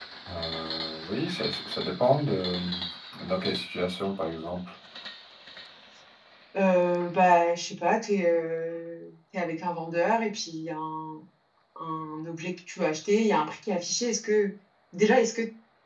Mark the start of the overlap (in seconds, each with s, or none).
none